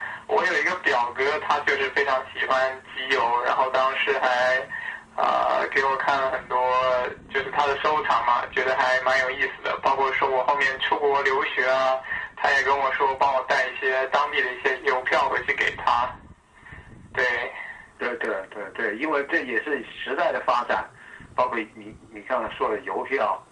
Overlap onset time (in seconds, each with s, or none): none